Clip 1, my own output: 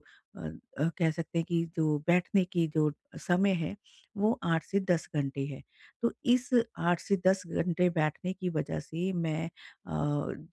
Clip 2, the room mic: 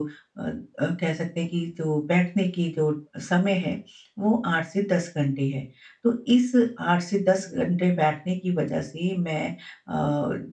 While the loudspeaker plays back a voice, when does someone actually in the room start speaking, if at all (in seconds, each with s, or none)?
none